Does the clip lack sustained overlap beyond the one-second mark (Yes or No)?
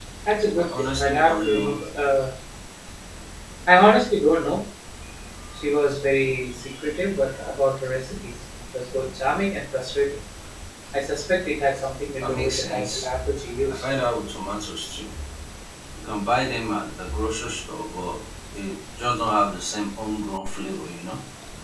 No